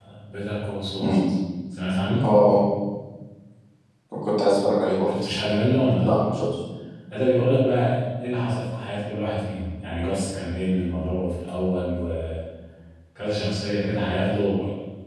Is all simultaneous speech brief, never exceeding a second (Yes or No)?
Yes